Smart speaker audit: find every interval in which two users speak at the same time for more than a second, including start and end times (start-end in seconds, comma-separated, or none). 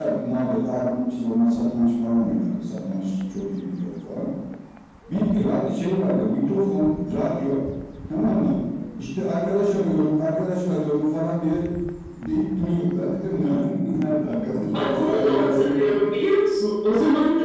14.7-16.0